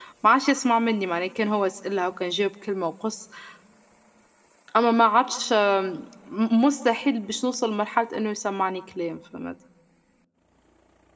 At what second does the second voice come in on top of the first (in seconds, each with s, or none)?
none